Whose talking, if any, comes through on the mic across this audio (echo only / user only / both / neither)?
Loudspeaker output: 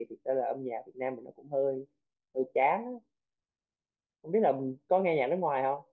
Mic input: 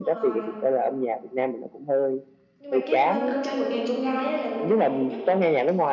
both